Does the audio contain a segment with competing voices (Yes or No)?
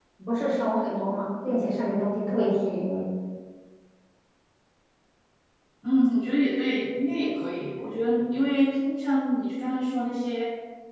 No